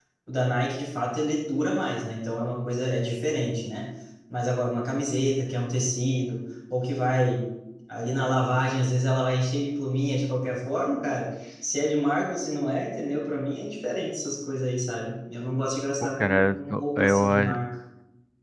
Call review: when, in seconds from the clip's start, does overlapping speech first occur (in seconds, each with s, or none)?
16.0 s